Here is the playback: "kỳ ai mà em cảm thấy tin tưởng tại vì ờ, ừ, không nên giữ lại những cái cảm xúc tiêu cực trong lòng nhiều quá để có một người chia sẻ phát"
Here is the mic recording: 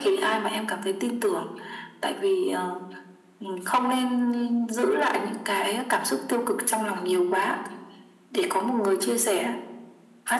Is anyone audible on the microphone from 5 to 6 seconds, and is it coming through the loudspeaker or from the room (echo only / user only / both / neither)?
echo only